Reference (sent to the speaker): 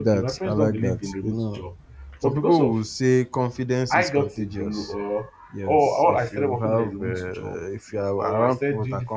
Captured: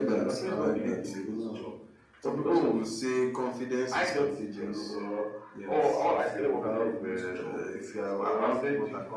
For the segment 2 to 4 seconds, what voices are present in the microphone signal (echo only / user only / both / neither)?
echo only